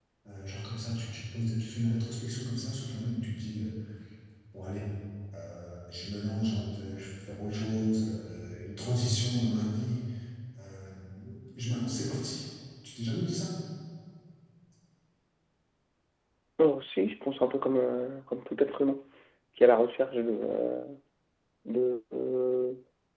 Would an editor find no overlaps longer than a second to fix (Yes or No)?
Yes